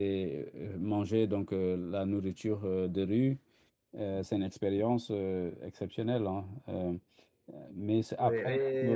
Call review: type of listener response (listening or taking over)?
taking over